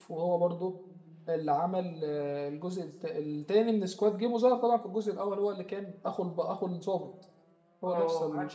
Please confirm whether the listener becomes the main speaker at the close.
Yes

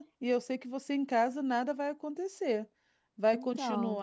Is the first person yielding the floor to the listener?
No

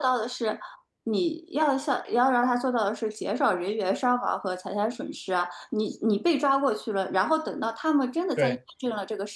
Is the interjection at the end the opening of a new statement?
No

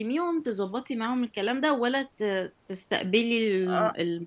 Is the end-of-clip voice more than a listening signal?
Yes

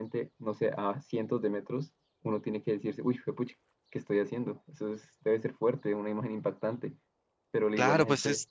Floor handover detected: Yes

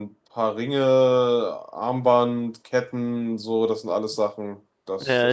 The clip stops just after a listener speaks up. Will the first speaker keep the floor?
No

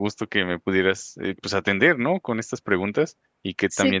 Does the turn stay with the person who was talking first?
Yes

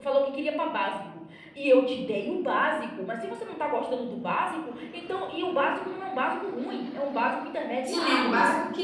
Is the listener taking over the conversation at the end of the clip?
Yes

